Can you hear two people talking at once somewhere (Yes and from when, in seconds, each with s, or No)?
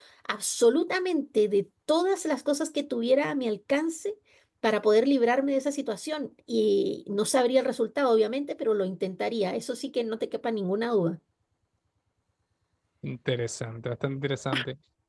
No